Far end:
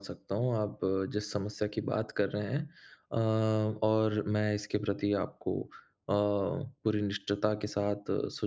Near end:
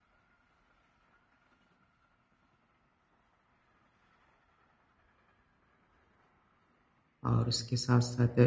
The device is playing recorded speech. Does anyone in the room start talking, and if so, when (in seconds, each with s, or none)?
7.2 s